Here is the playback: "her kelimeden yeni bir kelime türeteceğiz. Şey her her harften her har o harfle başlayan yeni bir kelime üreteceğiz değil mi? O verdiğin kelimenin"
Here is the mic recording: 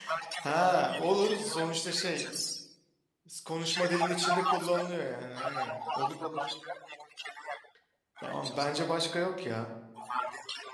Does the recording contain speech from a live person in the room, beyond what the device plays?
Yes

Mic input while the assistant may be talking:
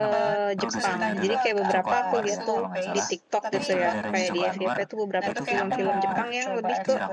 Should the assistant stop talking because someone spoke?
Yes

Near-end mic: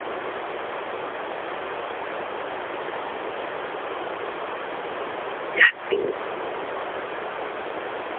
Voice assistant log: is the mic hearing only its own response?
No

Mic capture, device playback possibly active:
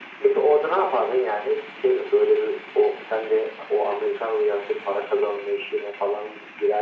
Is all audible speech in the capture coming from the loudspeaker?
Yes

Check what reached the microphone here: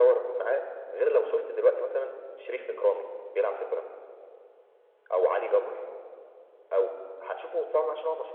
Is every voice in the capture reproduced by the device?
Yes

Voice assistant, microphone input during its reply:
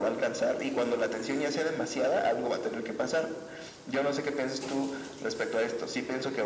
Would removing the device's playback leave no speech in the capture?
Yes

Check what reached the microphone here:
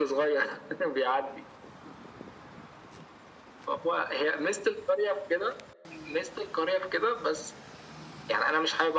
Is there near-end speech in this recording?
No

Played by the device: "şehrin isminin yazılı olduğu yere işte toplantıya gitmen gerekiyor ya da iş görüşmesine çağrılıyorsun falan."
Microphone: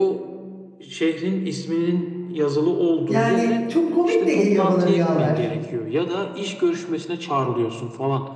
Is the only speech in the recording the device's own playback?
No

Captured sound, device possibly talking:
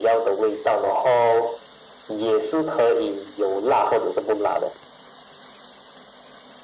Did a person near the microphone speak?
No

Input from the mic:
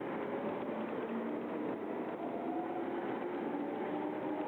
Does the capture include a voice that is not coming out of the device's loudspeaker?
No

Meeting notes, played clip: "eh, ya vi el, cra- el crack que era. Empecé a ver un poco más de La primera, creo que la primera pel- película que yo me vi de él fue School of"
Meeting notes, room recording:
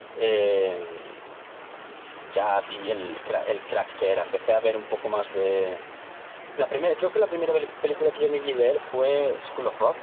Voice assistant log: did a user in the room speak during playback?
No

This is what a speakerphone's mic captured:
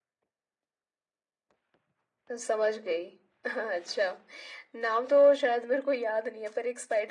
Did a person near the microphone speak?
No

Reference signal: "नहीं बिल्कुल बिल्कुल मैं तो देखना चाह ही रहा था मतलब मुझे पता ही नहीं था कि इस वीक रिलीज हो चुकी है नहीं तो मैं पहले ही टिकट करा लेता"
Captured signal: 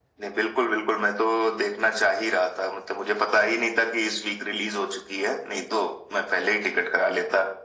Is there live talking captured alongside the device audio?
No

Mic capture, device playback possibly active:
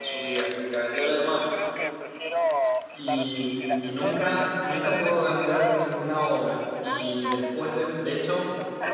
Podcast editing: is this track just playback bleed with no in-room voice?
No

